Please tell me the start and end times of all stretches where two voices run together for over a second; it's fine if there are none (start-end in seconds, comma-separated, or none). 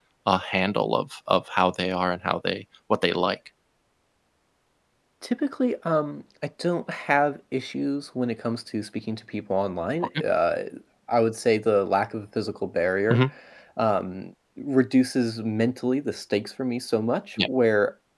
none